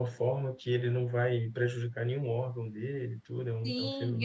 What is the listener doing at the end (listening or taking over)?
taking over